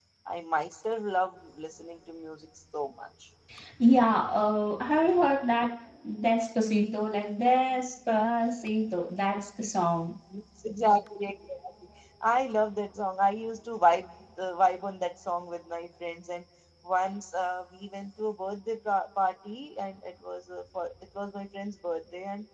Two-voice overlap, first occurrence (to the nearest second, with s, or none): none